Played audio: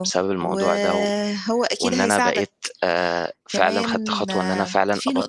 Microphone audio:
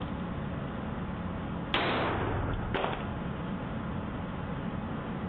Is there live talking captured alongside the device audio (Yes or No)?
No